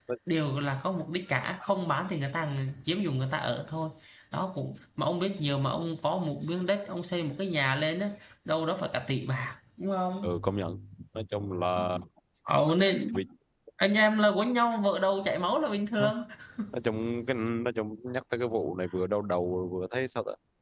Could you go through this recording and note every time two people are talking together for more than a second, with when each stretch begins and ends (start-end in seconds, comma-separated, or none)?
none